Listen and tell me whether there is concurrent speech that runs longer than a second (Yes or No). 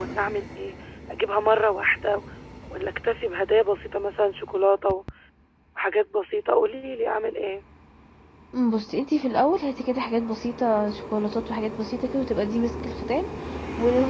No